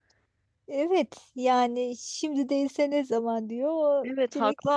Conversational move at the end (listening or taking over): taking over